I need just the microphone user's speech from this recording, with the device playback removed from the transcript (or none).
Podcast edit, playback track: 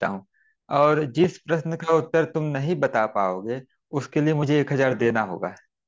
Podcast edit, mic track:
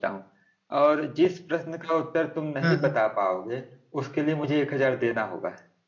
हाँ हाँ